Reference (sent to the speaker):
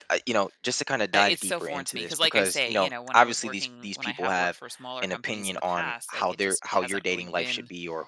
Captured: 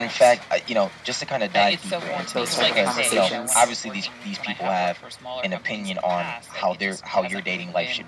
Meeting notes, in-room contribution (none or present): present